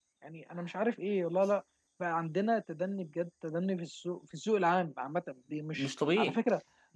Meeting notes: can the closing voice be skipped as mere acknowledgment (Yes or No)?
Yes